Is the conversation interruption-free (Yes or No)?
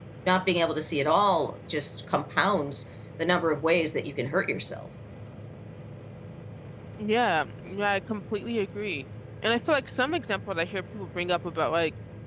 Yes